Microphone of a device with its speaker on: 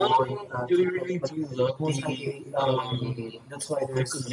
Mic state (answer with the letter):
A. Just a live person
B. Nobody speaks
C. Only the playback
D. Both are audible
C